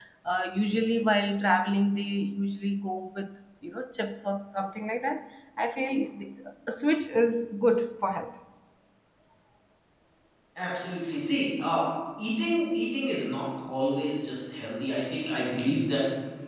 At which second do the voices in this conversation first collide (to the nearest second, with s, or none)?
none